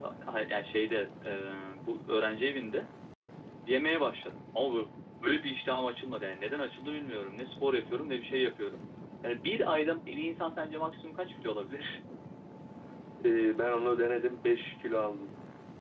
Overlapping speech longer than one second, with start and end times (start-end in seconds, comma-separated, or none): none